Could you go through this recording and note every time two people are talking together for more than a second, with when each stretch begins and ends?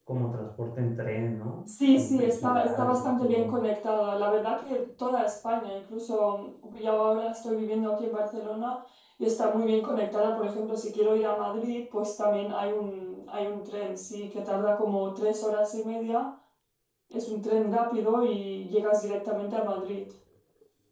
1.7-3.6

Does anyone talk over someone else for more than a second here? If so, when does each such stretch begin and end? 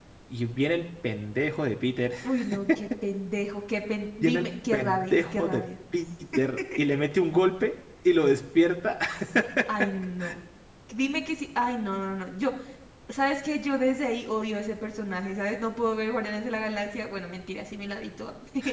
4.2-5.6

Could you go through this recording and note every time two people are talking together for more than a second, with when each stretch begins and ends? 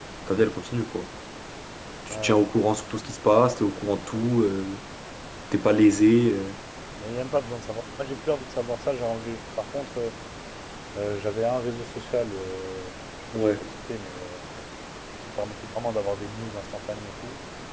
none

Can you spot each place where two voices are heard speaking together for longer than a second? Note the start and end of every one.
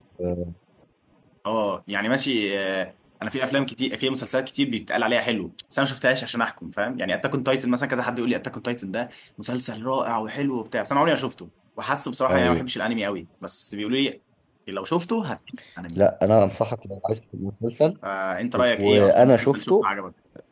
18.5-19.9

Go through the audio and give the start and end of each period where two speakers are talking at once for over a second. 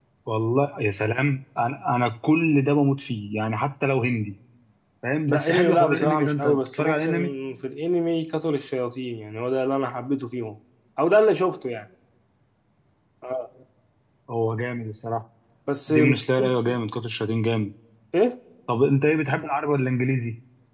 5.3-7.1

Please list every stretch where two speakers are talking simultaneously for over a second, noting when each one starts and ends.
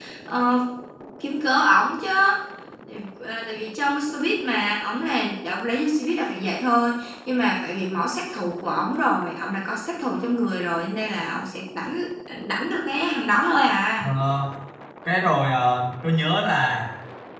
none

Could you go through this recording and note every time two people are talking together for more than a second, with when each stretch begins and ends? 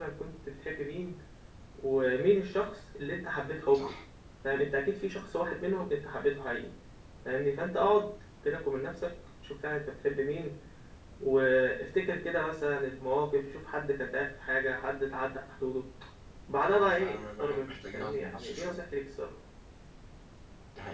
16.7-18.8

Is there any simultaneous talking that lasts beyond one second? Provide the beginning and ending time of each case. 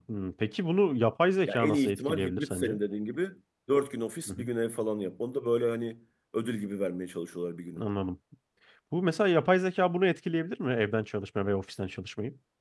1.5-2.8

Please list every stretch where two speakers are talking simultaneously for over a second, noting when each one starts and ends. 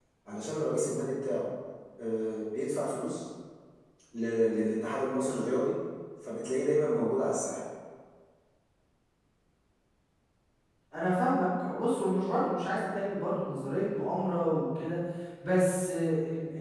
none

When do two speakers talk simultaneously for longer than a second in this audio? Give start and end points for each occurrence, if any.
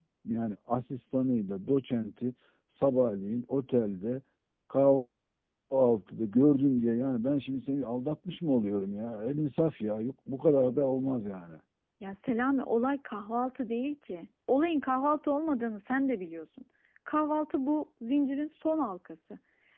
none

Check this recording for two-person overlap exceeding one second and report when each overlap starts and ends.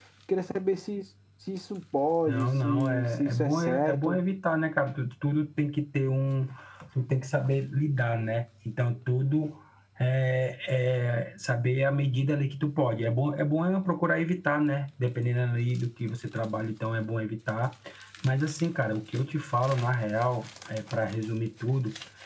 2.2-4.2

